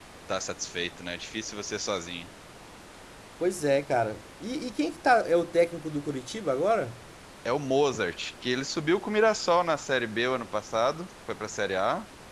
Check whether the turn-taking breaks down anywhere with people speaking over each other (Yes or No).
No